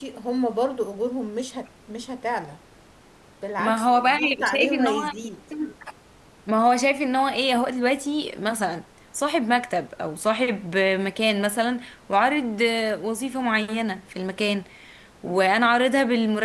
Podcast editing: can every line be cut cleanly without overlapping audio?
No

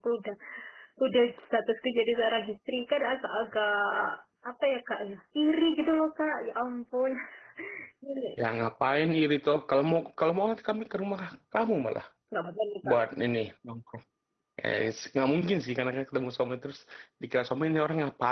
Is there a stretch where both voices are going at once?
No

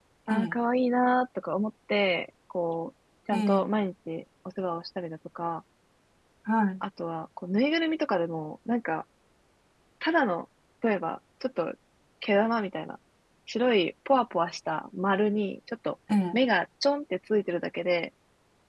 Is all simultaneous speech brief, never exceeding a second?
Yes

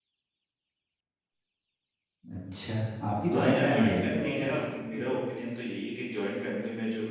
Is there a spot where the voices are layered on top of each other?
Yes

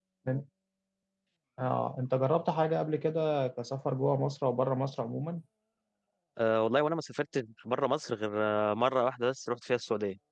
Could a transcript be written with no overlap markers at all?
Yes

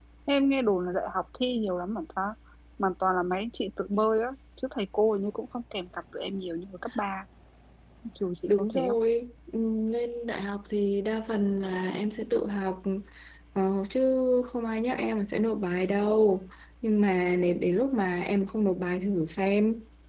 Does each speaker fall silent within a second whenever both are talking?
Yes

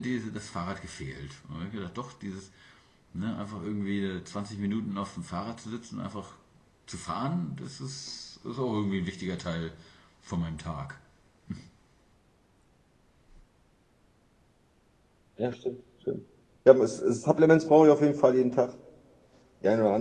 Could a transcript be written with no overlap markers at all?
Yes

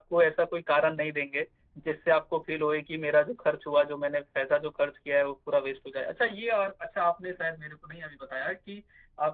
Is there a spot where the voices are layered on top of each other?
No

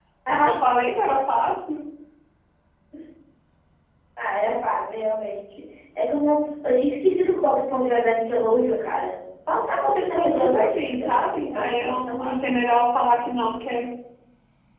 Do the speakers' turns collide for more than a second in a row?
Yes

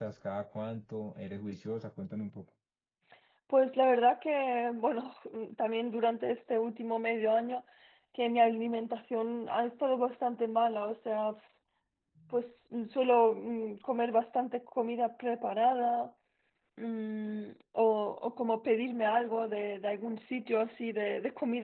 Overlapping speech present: No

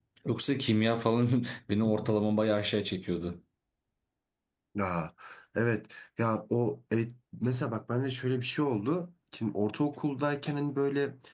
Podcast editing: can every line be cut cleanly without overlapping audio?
Yes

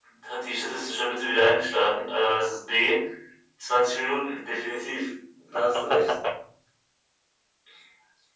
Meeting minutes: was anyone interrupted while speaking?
No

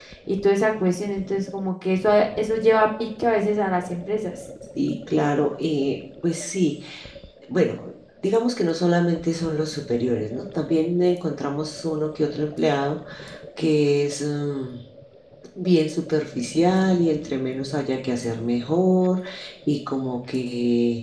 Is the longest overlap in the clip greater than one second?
No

